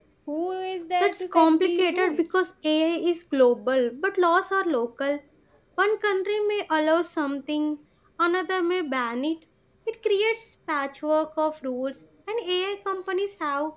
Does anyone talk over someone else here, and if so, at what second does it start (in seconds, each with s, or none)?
1.0 s